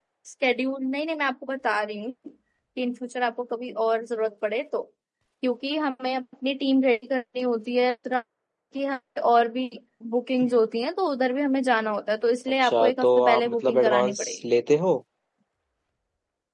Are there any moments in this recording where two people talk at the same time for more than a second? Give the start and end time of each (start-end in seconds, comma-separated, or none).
12.6-14.4